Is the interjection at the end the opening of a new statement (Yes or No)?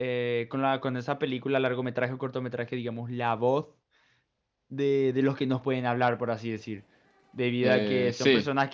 No